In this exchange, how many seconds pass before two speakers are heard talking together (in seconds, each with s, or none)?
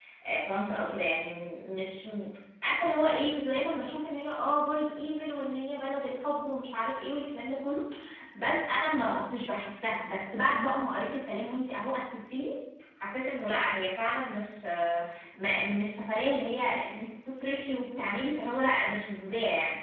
none